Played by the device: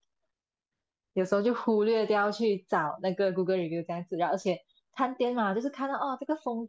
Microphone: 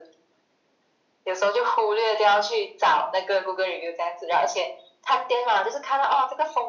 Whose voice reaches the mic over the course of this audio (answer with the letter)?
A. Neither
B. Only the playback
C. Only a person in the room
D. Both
B